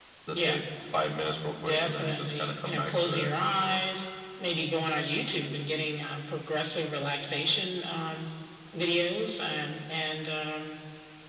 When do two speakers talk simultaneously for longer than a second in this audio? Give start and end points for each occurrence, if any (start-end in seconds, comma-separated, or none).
1.6-3.3